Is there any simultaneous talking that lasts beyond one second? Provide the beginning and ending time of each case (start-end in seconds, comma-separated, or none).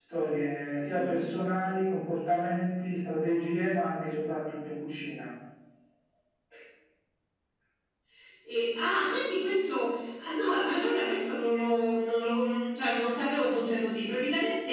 none